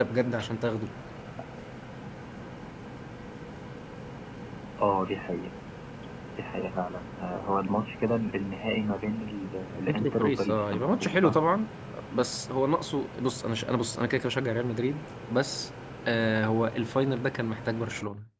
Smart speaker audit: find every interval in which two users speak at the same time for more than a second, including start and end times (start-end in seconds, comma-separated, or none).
9.9-11.4